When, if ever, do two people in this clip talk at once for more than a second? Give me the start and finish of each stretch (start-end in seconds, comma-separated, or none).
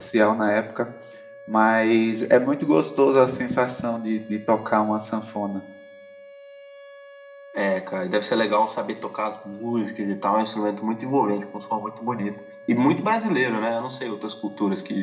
none